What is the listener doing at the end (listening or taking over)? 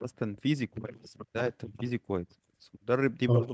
listening